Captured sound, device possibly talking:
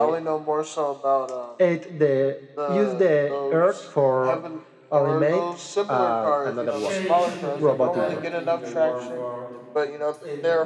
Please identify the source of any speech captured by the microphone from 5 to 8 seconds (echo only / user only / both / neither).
both